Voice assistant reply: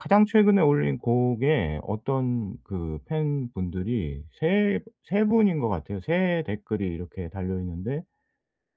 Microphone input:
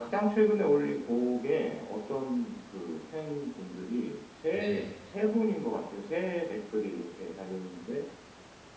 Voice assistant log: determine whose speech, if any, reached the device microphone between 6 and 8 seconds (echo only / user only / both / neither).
echo only